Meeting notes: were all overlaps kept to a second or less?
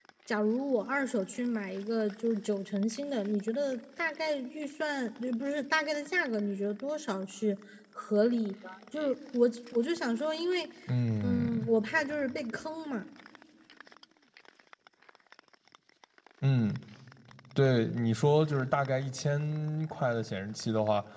Yes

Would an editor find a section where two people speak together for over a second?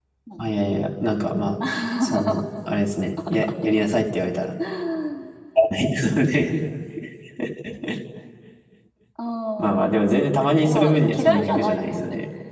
Yes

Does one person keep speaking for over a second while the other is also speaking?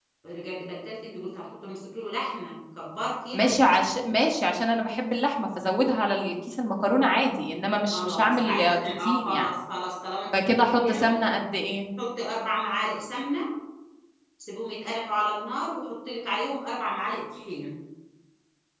Yes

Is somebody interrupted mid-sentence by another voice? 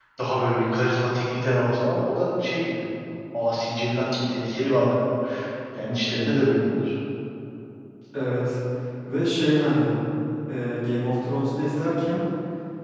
No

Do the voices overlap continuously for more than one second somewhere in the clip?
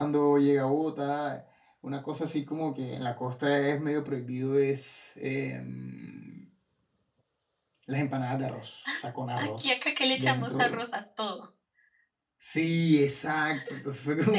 Yes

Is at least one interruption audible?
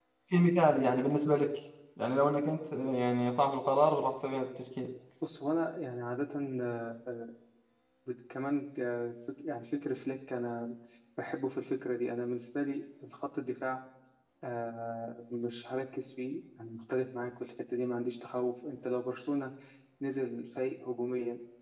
No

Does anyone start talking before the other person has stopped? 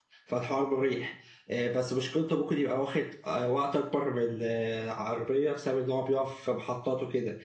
No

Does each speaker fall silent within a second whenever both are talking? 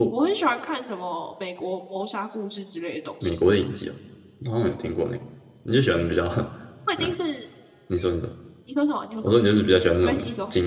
Yes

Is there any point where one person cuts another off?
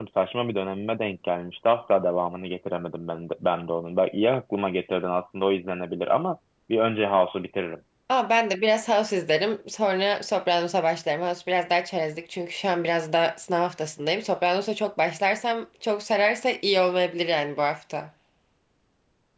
No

